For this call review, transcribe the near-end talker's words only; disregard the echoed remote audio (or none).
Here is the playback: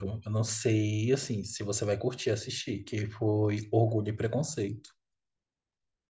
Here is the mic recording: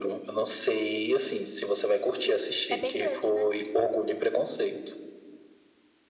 De- É bem grande, né?